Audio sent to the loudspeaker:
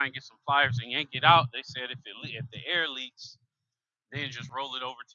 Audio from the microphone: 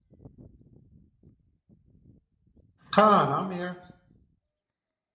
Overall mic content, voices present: user only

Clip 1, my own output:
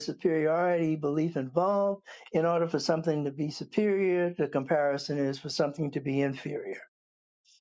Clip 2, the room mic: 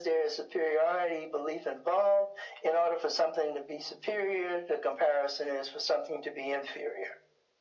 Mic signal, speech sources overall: echo only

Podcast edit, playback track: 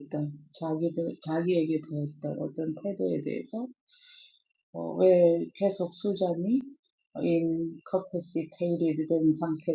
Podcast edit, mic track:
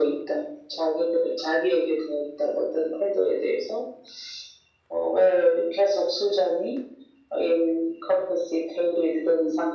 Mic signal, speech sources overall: echo only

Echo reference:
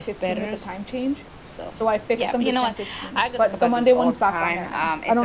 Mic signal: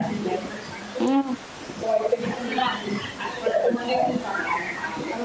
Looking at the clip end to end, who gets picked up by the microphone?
both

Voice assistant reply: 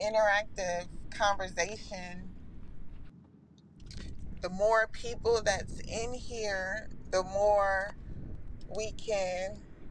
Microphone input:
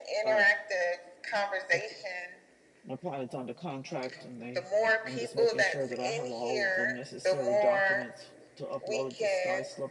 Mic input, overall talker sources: both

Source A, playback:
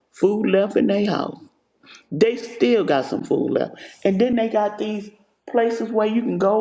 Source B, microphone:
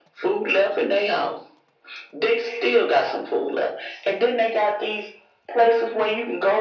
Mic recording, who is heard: echo only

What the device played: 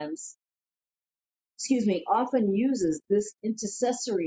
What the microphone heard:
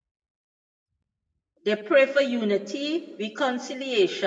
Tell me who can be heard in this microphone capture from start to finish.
user only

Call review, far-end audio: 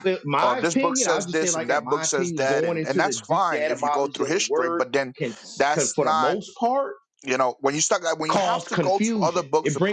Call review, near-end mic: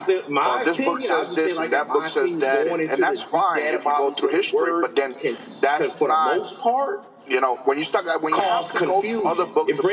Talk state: echo only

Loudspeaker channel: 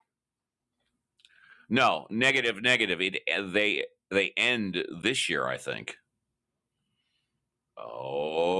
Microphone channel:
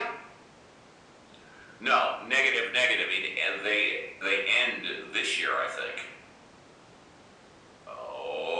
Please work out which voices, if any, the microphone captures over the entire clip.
echo only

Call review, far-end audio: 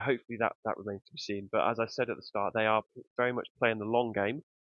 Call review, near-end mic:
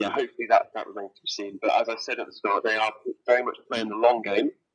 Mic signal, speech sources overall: echo only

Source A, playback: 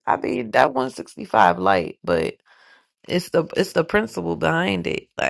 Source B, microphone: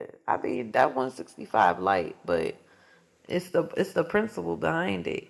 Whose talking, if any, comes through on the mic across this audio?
echo only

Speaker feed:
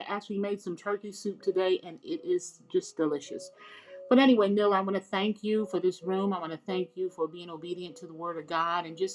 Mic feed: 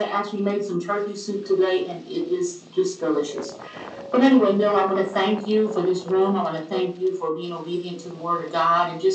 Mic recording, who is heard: echo only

